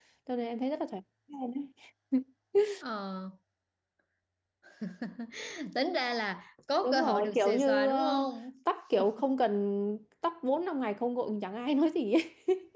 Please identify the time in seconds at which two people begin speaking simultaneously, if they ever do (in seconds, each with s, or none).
6.8 s